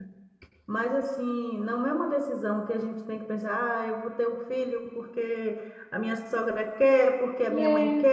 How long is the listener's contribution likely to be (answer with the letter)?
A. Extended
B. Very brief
B